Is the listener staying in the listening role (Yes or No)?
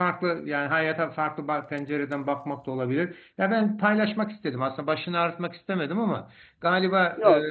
Yes